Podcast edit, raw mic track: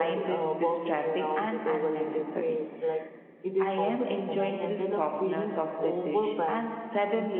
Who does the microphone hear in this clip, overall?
both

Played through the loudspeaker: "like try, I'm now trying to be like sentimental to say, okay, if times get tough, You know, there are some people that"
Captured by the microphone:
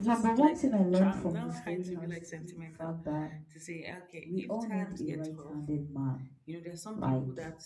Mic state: both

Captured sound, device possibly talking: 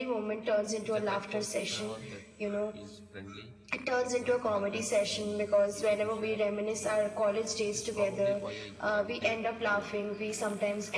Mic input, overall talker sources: both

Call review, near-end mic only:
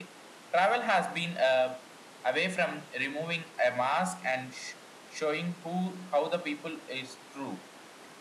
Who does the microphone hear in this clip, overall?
echo only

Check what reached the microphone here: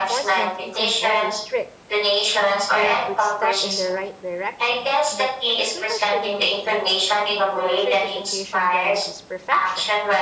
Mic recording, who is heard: both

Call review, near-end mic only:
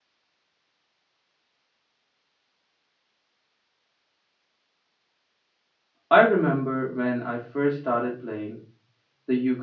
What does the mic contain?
user only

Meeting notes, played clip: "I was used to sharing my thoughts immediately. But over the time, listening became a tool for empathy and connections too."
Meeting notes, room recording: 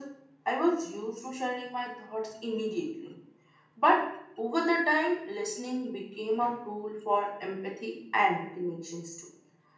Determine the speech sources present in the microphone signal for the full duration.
echo only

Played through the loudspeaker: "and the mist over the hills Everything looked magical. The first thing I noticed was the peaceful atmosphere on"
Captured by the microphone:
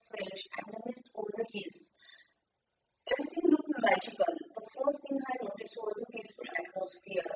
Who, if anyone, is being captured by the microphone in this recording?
echo only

